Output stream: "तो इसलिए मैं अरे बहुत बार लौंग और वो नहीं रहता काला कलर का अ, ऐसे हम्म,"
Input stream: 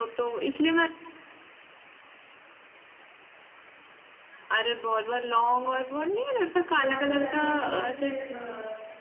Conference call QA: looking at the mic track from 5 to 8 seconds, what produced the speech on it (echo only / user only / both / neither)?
both